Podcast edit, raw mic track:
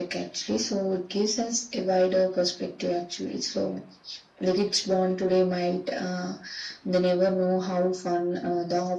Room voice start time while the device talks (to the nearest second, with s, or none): none